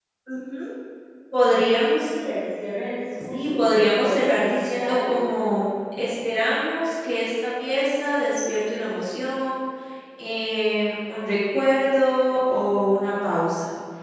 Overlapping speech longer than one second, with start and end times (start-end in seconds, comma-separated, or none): 3.3-5.4